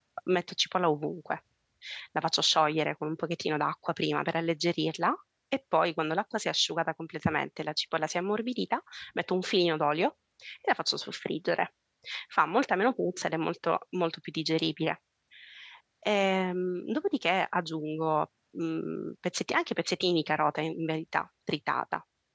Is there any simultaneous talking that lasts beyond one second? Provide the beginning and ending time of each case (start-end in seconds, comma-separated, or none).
none